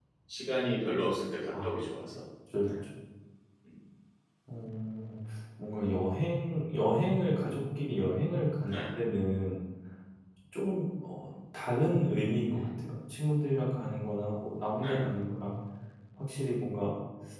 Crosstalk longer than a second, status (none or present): none